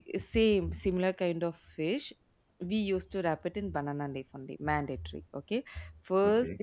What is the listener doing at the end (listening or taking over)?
listening